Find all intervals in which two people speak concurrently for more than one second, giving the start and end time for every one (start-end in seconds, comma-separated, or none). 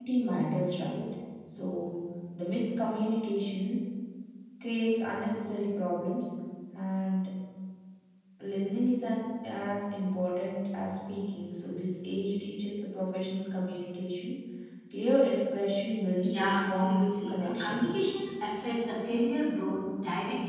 16.2-18.1